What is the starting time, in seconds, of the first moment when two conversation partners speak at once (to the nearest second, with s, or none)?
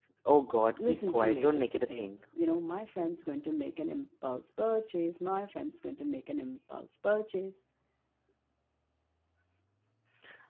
1 s